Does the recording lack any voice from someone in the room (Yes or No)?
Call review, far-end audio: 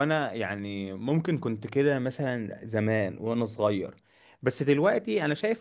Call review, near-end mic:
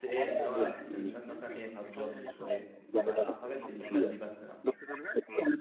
No